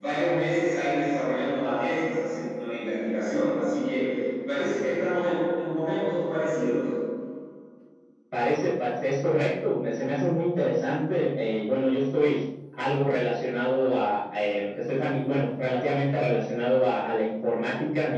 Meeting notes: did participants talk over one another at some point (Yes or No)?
No